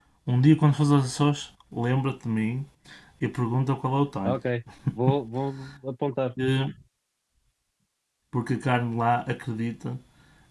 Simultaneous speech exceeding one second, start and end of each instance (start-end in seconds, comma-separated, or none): none